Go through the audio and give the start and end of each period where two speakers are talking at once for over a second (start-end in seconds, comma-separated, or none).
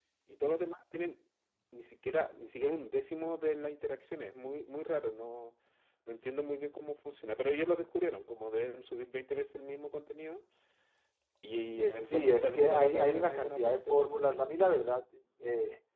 12.0-14.2